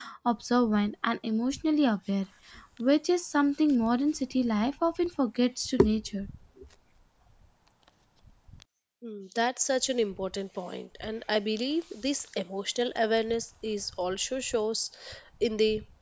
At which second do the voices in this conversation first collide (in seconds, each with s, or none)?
none